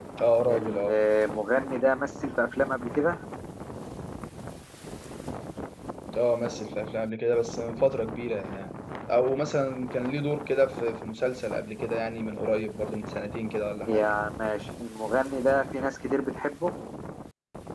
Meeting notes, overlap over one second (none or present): none